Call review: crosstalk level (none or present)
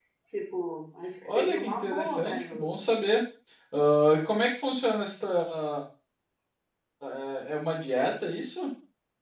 present